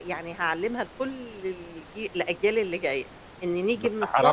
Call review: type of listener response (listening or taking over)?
taking over